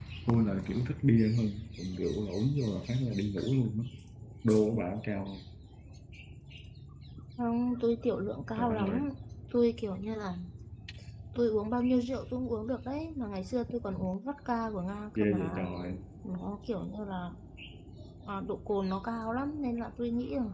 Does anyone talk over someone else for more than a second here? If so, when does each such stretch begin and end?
none

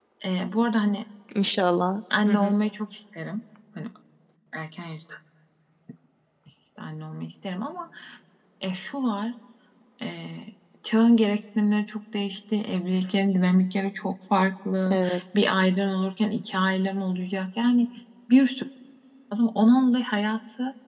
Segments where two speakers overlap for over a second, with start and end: none

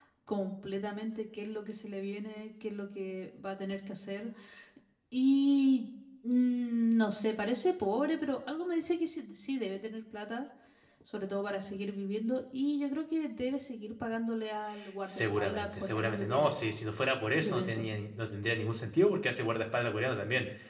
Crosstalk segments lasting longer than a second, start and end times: 15.1-16.6

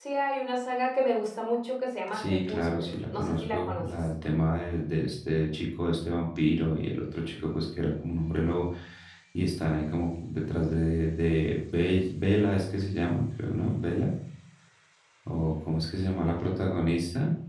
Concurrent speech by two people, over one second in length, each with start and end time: 2.1-3.8

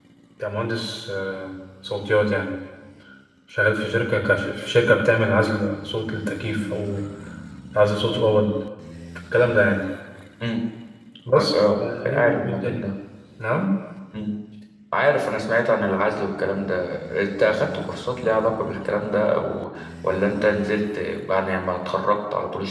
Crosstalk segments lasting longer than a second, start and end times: 11.3-12.8

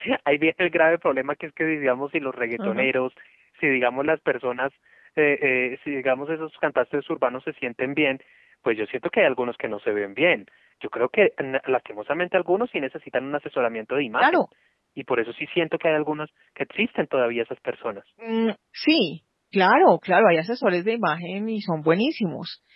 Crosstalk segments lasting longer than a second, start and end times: none

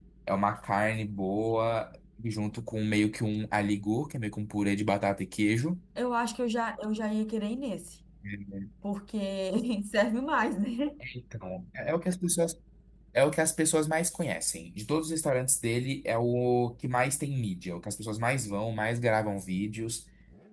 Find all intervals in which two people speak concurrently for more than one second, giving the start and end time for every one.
none

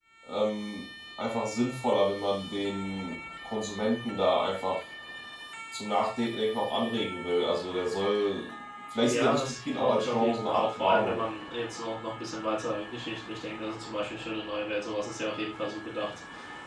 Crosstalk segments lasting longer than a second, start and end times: 9.0-11.2

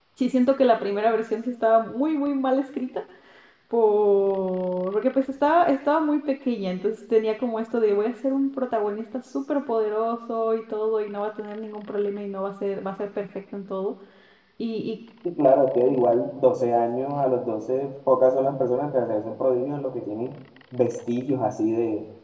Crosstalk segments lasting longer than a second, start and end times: none

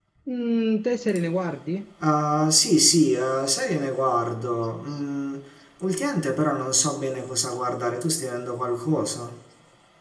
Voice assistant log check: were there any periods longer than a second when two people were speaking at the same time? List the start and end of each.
none

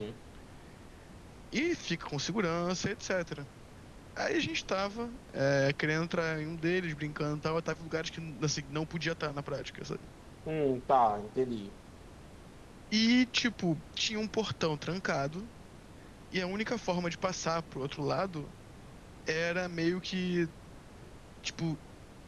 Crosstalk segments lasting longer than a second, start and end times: none

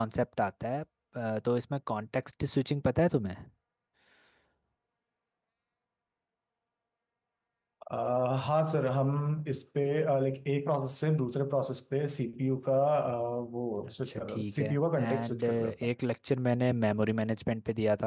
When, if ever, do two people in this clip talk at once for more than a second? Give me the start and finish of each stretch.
13.9-15.7

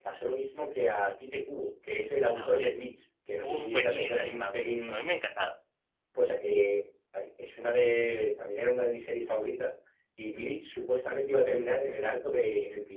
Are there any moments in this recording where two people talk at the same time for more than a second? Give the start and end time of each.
3.4-5.1

